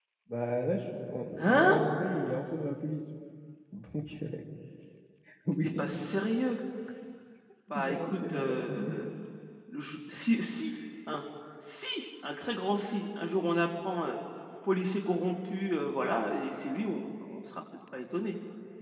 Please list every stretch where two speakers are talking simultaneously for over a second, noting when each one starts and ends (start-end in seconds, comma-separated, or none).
7.8-9.1